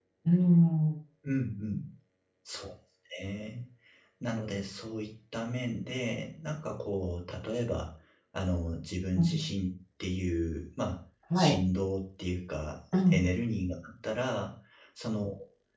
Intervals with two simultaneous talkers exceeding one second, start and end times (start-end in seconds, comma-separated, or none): none